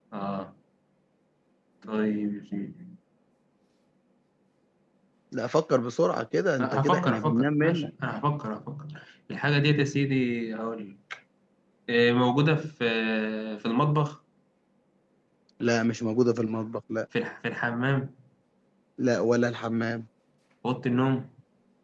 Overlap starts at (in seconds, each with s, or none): 6.6 s